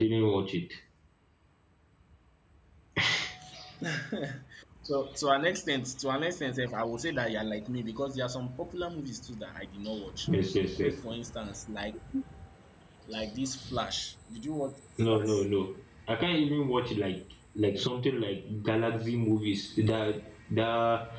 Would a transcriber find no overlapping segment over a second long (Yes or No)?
Yes